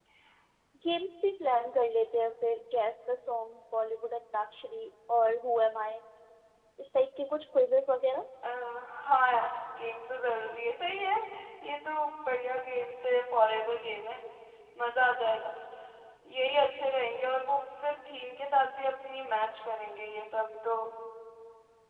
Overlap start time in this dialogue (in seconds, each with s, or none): none